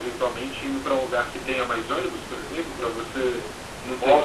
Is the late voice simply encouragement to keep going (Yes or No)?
No